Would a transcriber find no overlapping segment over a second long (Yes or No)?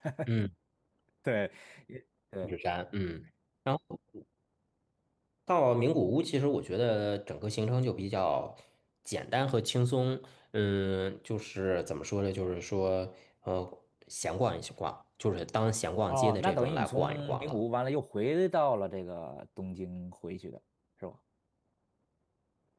No